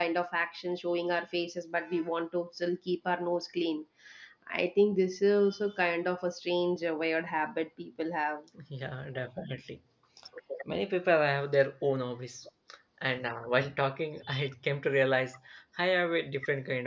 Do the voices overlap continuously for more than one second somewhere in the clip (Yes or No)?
No